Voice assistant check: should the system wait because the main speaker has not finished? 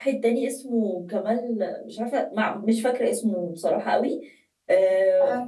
Yes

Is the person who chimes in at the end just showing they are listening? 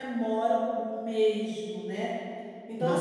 Yes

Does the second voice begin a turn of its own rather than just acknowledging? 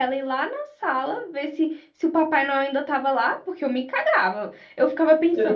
No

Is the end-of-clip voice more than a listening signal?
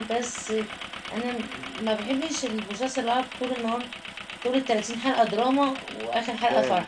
Yes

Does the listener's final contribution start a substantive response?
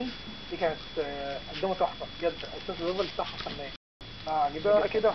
Yes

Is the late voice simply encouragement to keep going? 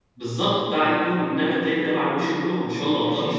No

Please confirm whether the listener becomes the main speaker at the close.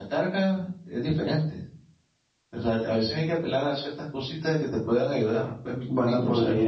Yes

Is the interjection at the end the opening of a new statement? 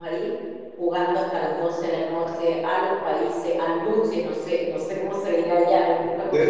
Yes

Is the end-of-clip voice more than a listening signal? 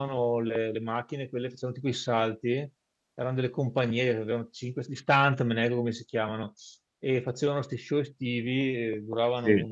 No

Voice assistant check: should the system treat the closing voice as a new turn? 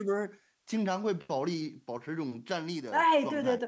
Yes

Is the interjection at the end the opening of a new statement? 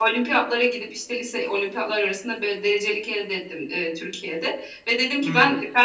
No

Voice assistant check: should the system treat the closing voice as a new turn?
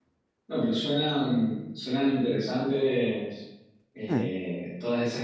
No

